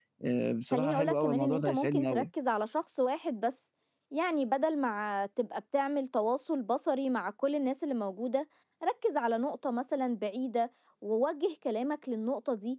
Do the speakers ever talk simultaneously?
Yes, from 0.7 s

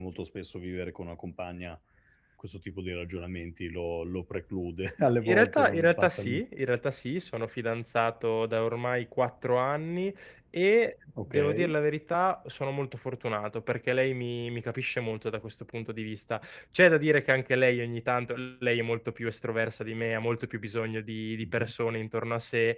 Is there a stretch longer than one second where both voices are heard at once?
Yes, from 5.0 s

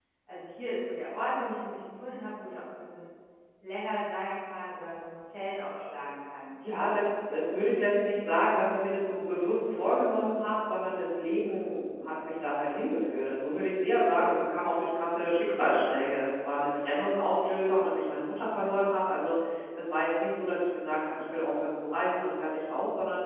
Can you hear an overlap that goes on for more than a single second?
No

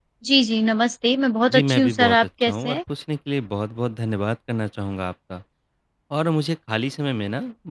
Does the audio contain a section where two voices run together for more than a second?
Yes, from 1.5 s

